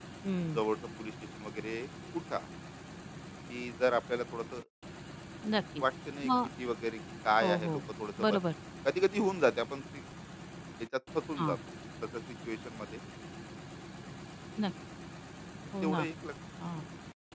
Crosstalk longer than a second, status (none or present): none